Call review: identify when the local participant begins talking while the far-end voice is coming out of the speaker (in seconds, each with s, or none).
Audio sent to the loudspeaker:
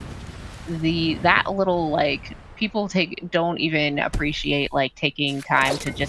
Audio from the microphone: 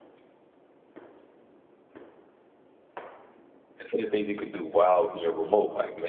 3.8 s